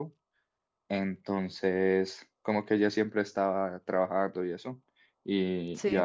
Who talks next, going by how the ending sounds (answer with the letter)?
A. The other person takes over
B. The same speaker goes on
B